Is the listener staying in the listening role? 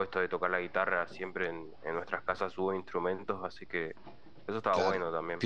No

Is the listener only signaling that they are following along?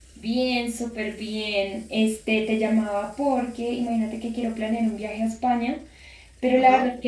Yes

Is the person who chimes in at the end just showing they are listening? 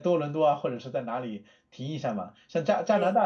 Yes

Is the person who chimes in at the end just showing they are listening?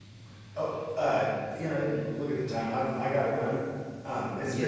No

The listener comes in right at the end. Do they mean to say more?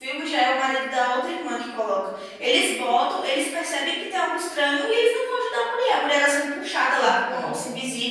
No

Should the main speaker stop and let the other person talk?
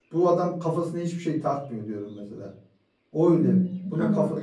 Yes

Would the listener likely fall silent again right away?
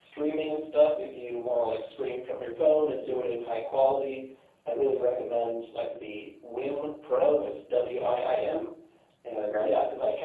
Yes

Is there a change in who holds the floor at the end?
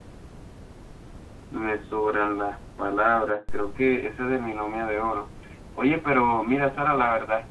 No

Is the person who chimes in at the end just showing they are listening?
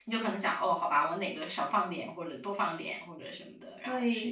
No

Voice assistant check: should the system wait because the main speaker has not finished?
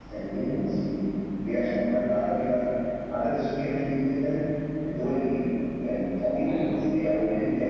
Yes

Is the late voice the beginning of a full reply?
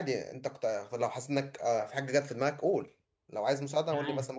Yes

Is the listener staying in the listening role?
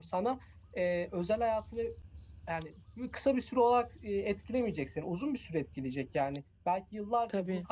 Yes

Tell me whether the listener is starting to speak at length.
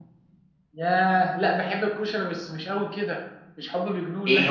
Yes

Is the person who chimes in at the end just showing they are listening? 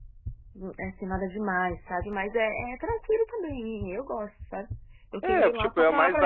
No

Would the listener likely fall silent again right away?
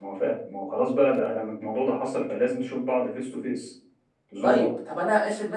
No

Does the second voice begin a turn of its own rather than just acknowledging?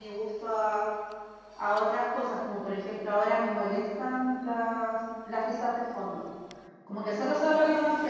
No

